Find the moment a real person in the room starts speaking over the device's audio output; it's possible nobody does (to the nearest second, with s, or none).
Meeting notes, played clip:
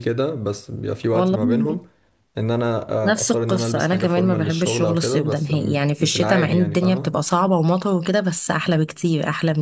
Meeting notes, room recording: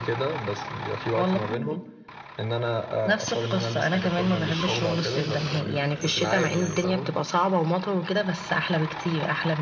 none